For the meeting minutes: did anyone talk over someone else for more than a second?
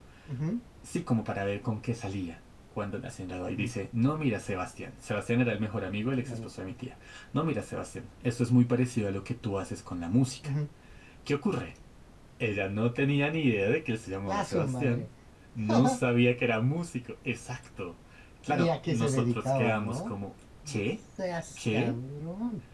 Yes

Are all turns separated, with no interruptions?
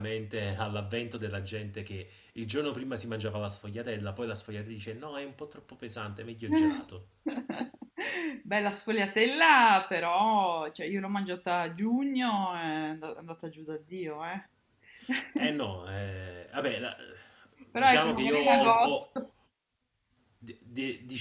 No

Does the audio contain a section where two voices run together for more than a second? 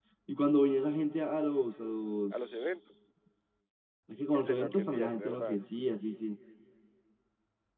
Yes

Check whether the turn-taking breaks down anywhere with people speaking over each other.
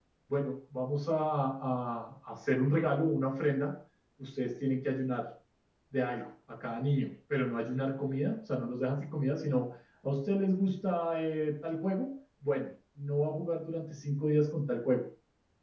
No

